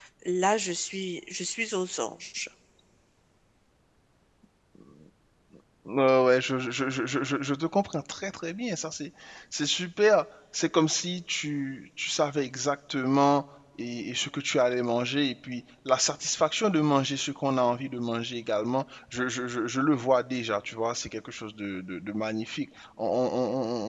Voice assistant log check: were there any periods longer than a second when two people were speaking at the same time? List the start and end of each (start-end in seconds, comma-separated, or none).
none